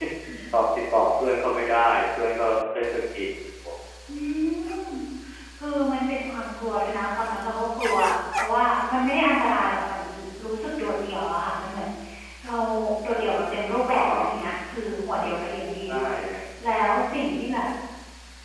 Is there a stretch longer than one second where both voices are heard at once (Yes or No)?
No